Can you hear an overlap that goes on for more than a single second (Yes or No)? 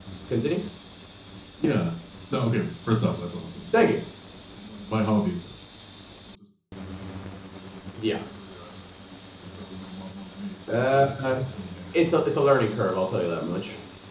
Yes